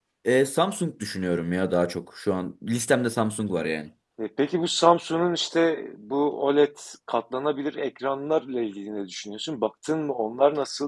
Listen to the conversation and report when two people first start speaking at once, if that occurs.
none

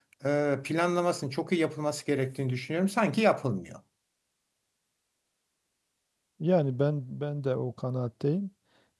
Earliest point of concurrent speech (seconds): none

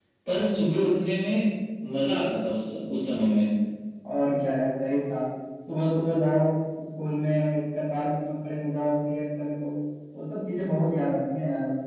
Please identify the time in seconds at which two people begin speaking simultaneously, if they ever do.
none

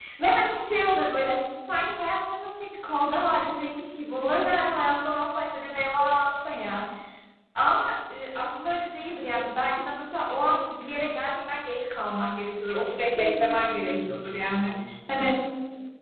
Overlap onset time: 13.1 s

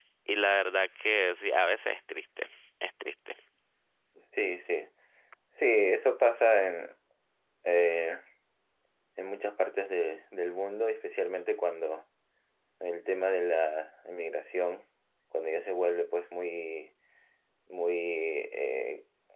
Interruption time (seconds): none

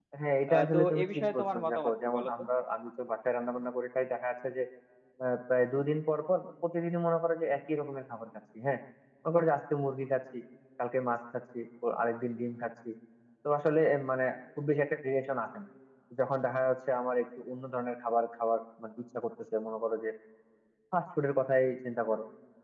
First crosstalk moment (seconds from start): 0.5 s

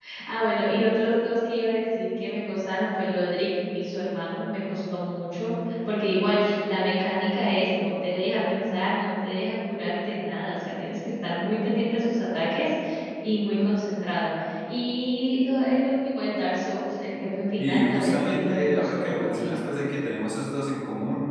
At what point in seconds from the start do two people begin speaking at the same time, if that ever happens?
17.6 s

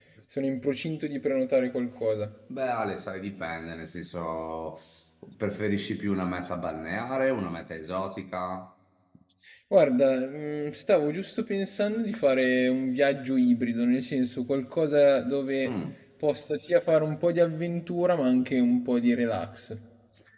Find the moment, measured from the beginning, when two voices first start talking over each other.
none

